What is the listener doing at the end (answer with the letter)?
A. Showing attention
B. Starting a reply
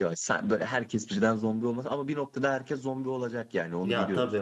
B